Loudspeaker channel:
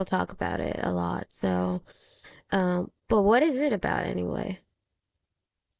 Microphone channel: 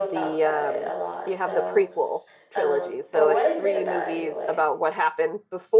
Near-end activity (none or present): present